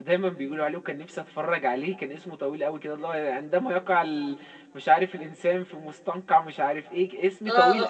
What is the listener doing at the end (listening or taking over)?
taking over